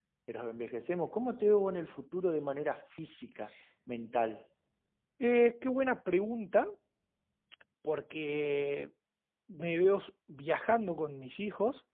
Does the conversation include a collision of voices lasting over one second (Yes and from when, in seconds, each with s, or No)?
No